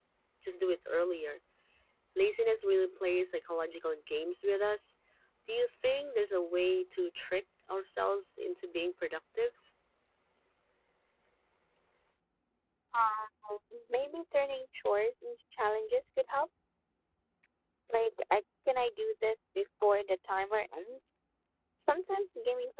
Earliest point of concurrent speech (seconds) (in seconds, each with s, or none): none